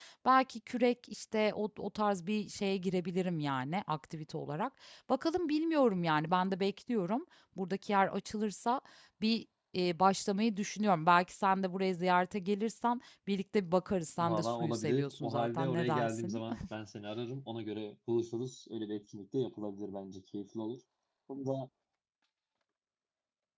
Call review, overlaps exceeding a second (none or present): present